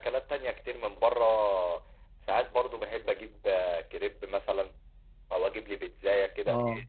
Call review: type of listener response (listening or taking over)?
listening